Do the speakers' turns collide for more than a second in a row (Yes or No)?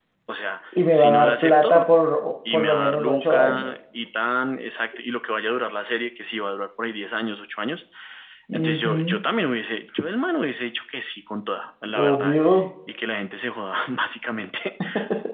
Yes